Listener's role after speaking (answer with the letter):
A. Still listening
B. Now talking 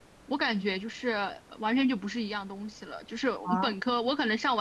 A